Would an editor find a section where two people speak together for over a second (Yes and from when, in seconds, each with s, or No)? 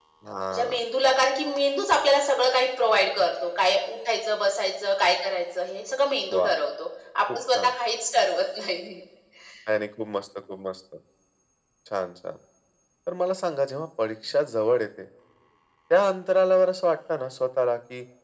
No